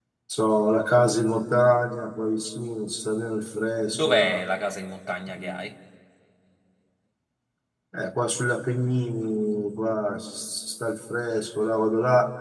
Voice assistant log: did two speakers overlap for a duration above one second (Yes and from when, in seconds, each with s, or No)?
No